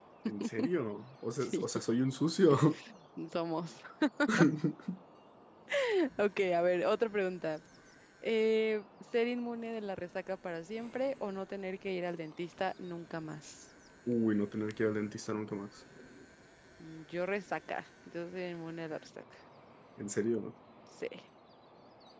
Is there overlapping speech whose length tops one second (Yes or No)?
No